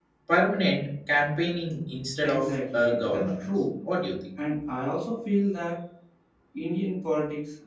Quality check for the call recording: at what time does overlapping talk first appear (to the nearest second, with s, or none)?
2 s